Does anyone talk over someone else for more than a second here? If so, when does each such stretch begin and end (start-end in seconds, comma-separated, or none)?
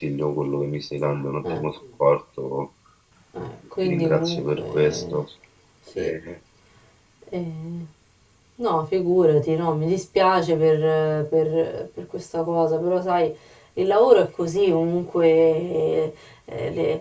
3.8-5.2